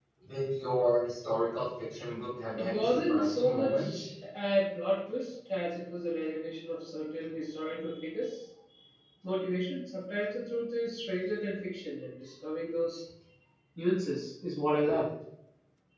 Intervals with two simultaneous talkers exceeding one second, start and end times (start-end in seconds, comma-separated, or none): 2.6-4.0